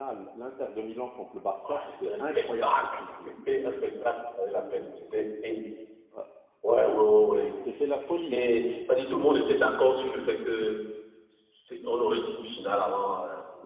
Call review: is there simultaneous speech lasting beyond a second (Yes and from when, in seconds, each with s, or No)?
Yes, from 1.6 s